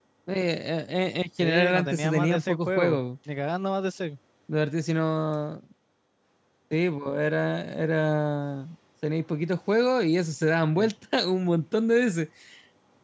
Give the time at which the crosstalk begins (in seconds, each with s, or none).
1.4 s